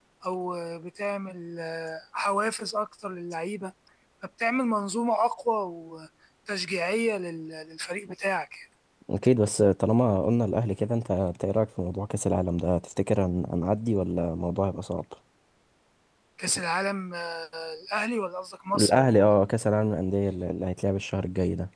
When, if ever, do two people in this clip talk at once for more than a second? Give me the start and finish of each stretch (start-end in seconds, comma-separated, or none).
none